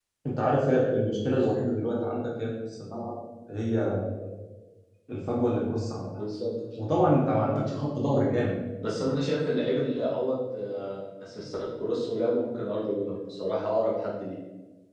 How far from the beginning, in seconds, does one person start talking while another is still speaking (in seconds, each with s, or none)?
none